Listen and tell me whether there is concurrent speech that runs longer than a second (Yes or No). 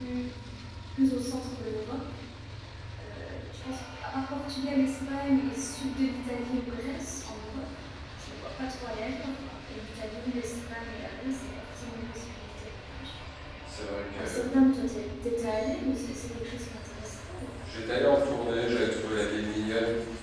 No